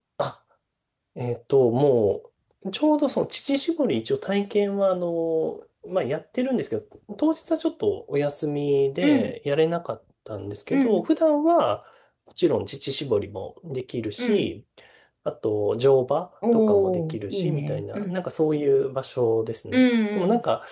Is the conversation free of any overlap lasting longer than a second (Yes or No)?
No